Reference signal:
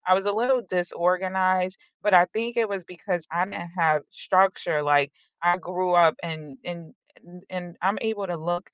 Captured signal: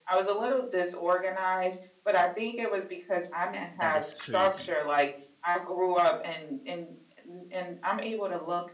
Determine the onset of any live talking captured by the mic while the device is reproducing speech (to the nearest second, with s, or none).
4 s